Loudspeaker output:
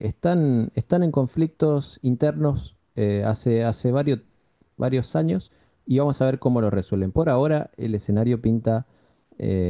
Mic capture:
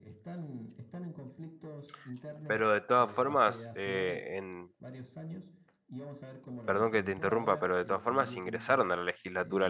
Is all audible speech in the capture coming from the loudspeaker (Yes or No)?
No